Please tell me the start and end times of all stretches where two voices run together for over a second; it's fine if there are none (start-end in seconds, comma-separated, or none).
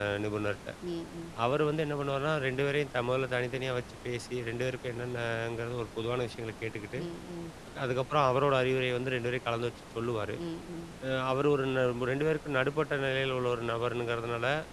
none